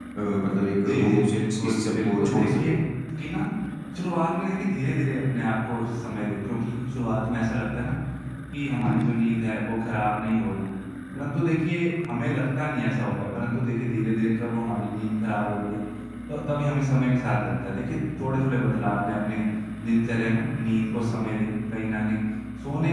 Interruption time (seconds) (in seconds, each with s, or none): 0.9 s